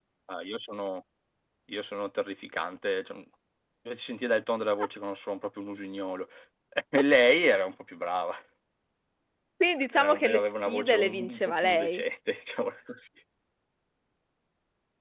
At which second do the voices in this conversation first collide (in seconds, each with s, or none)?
9.9 s